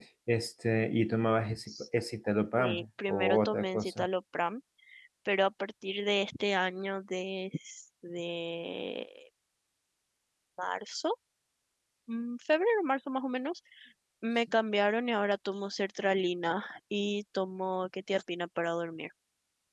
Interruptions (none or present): present